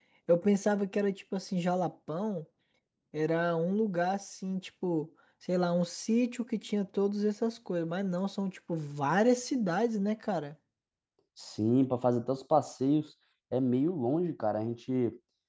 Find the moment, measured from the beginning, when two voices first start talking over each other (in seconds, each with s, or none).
none